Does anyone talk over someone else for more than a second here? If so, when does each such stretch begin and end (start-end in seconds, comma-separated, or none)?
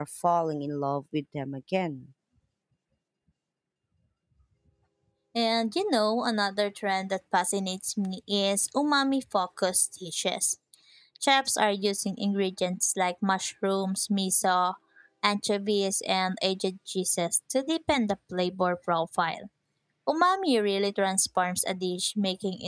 none